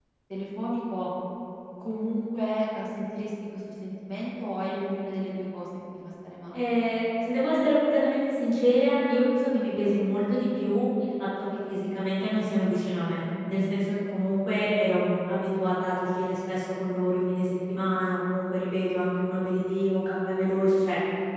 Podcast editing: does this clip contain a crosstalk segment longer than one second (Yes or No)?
No